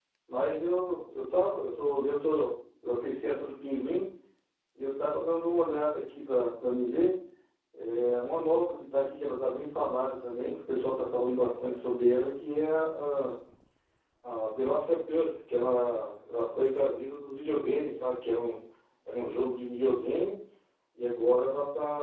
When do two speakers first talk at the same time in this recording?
none

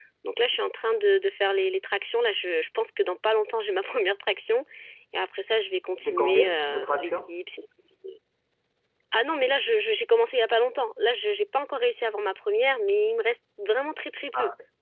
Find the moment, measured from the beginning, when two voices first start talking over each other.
6.0 s

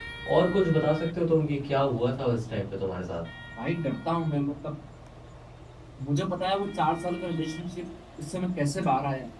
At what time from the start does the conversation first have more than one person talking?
none

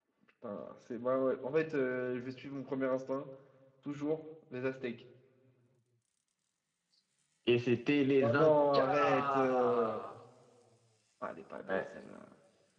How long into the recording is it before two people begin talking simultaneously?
8.2 s

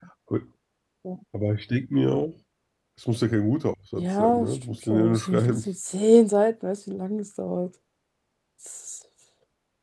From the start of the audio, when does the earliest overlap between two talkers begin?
4.0 s

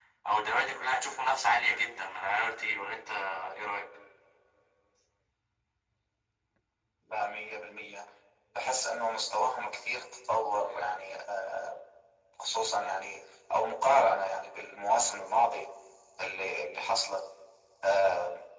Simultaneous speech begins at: none

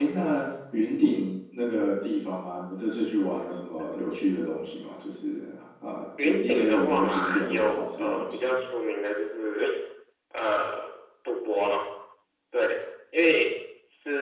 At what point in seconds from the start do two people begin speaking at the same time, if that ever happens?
6.2 s

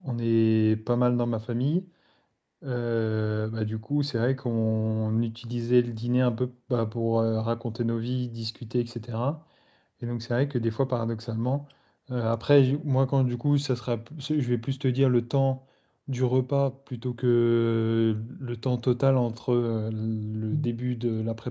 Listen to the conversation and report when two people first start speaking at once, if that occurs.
none

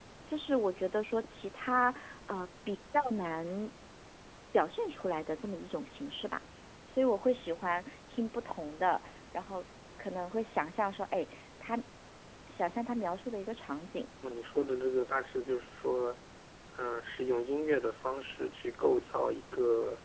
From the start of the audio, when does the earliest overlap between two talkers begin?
none

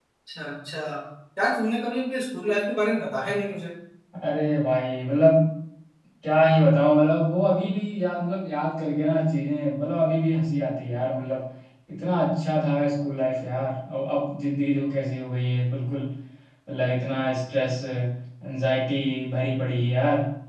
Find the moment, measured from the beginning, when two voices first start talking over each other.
none

